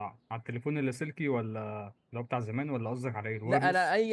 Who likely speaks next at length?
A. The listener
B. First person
A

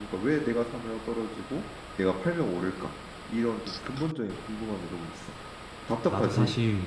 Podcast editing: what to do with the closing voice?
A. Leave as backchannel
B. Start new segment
B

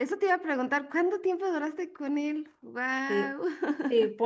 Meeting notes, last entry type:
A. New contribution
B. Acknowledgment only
A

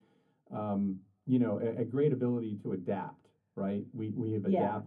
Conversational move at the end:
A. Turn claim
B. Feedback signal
B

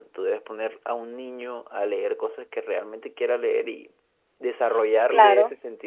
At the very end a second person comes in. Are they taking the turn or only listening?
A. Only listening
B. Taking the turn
A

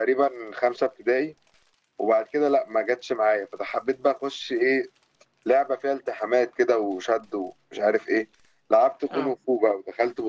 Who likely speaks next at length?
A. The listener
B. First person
B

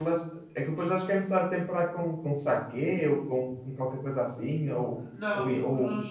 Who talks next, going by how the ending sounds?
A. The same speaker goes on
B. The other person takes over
B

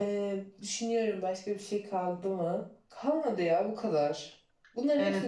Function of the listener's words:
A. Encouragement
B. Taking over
A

